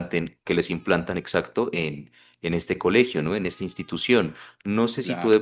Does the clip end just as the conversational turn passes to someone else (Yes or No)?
No